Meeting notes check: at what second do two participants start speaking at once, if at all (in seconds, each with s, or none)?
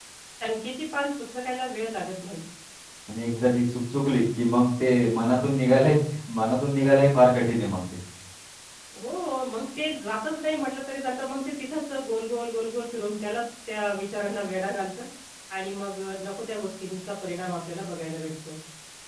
none